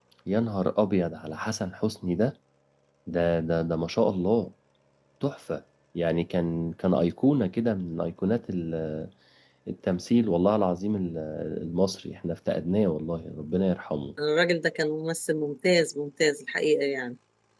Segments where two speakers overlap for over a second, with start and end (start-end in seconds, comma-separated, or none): none